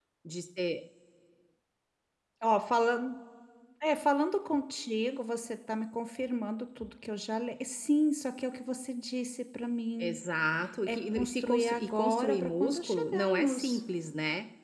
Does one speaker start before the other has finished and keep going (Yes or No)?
Yes